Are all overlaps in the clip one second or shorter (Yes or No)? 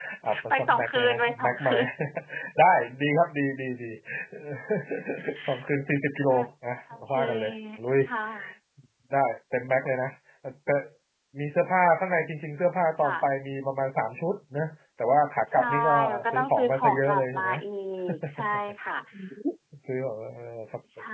No